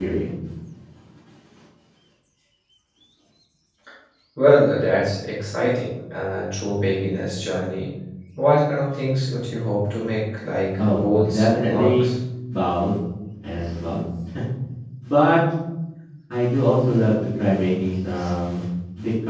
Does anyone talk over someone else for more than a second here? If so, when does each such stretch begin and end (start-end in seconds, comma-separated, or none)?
10.8-12.1